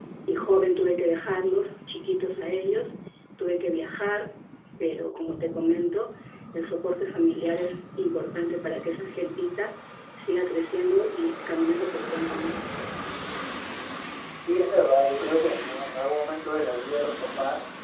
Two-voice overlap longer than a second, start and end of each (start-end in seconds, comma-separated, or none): none